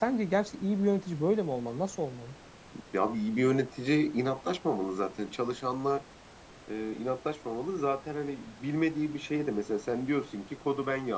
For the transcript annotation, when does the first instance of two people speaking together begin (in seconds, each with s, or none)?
none